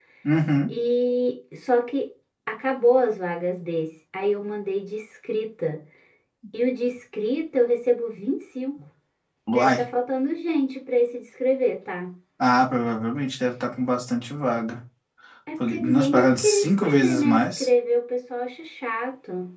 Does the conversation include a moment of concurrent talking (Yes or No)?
Yes